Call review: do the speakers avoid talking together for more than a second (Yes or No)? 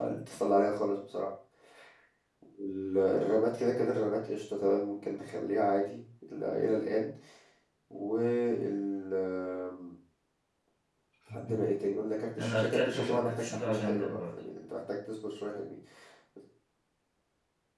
No